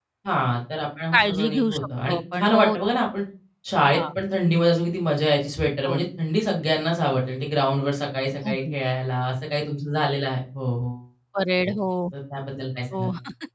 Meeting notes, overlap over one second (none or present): present